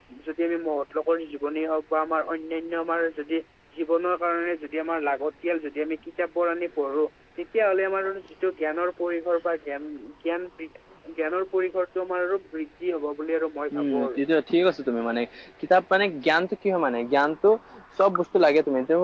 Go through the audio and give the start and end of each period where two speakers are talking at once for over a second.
none

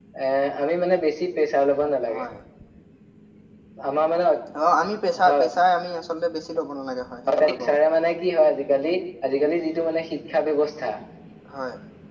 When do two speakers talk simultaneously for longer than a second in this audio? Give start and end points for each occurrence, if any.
none

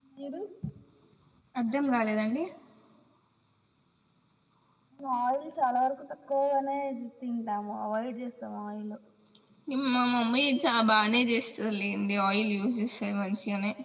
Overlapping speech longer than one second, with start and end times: none

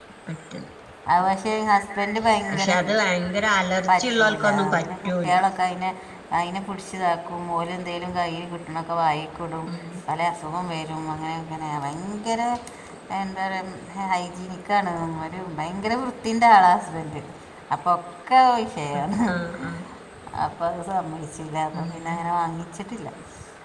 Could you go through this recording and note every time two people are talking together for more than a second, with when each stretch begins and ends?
3.9-5.4

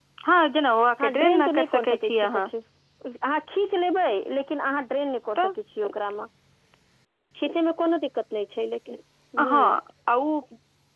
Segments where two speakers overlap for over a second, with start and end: 1.0-2.5

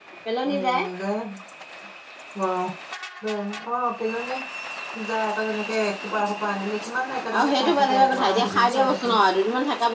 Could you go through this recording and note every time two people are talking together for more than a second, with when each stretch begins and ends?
7.4-9.1

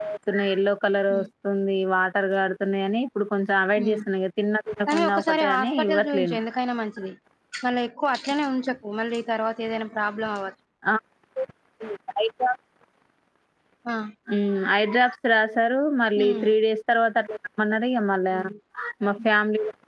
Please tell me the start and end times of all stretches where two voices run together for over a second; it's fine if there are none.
4.9-6.4

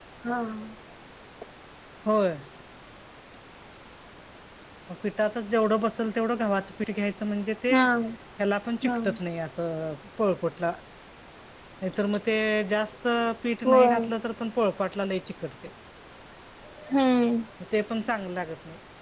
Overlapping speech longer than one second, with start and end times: none

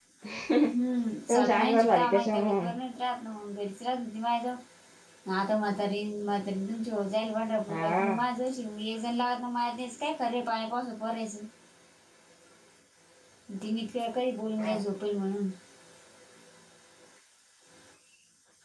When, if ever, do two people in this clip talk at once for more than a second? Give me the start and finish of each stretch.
1.3-2.6

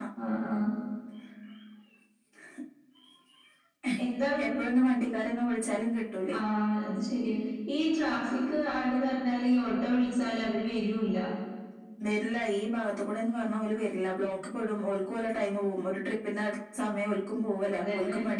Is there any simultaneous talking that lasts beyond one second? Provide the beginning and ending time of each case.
none

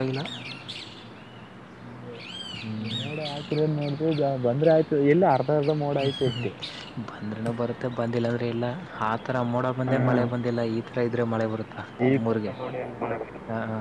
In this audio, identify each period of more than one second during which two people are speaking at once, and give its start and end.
none

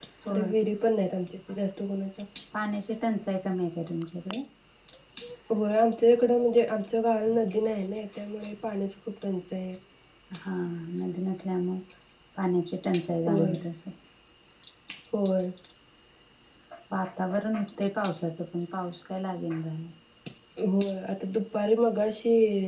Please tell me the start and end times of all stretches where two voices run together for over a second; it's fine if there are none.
none

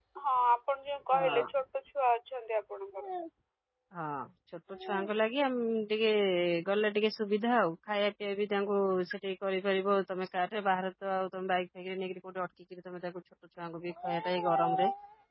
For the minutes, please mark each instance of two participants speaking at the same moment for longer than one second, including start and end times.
none

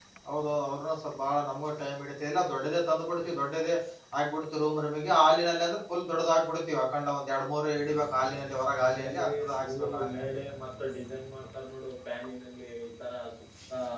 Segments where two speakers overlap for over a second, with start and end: 8.7-10.2

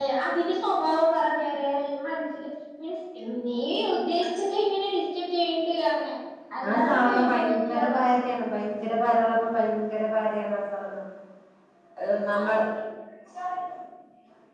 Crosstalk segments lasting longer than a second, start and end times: 6.7-8.0

